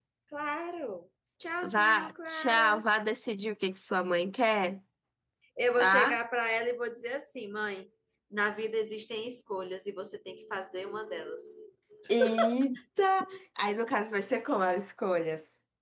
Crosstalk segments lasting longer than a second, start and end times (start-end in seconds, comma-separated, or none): 1.6-2.8